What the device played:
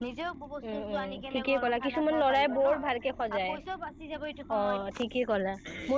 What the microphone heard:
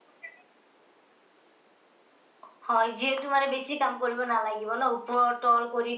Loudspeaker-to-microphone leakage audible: No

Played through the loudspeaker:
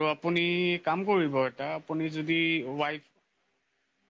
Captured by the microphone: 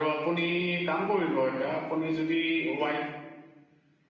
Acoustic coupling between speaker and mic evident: Yes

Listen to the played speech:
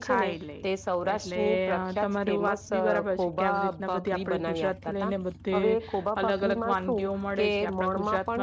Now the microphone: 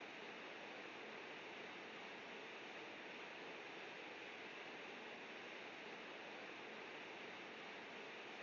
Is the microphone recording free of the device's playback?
Yes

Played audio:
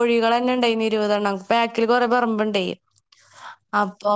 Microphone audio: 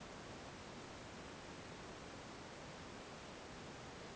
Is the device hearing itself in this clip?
No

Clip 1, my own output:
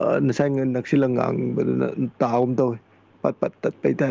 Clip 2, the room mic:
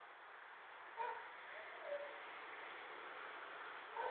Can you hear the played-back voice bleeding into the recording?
No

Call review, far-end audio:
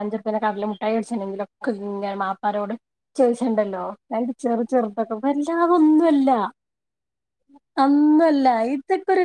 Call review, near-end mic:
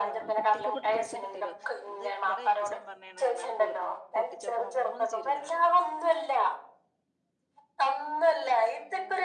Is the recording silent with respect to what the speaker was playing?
No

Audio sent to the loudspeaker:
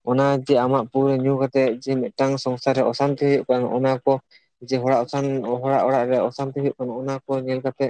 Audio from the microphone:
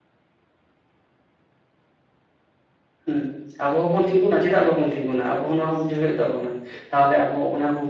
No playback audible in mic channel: Yes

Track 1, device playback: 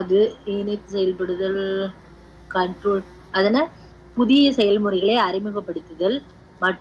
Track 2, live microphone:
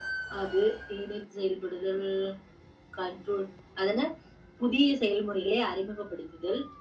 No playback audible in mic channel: No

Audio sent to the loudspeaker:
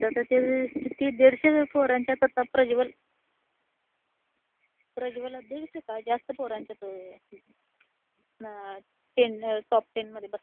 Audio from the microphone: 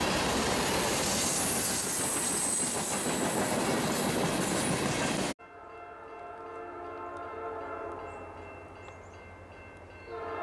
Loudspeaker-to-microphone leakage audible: No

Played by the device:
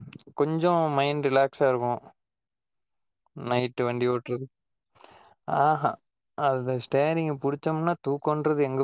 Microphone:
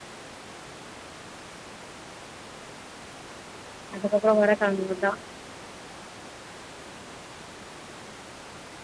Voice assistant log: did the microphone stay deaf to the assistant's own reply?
Yes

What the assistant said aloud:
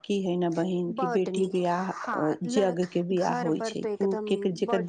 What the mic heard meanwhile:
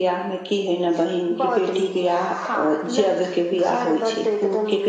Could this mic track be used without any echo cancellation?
No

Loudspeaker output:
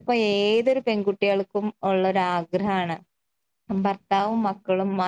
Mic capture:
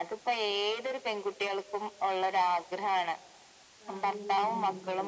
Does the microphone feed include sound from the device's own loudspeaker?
Yes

